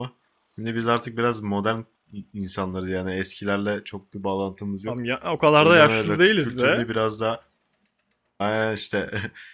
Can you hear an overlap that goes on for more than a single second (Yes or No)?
Yes